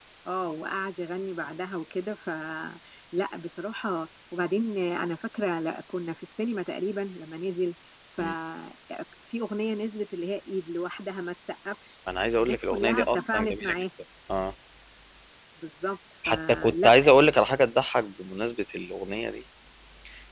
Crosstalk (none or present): present